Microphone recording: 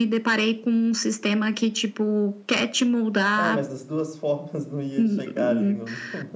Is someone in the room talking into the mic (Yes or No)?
Yes